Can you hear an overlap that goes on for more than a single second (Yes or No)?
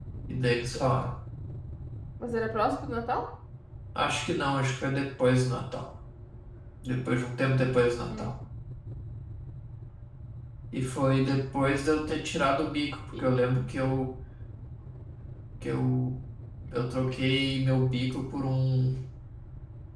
No